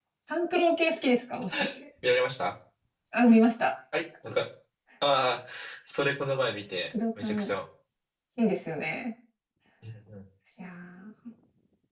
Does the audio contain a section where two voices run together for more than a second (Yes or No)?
No